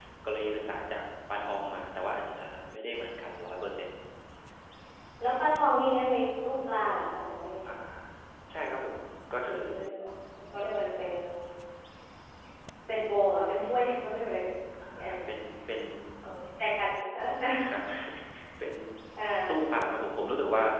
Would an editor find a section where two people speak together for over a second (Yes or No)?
No